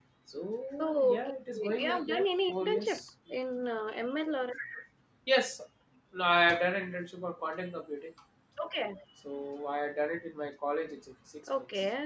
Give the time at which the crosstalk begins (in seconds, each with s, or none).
0.8 s